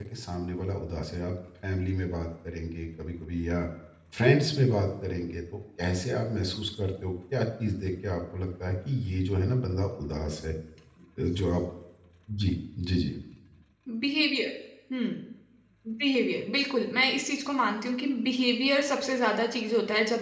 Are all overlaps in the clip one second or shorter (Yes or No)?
Yes